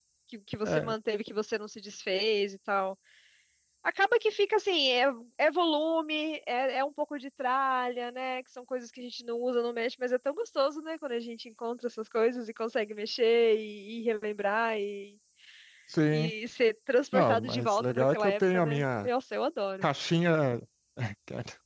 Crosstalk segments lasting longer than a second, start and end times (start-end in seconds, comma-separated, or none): 17.1-19.1